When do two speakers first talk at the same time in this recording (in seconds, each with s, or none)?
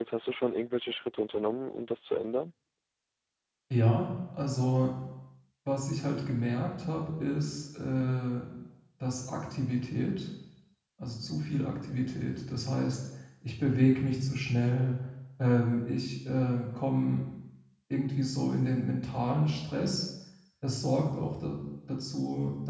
none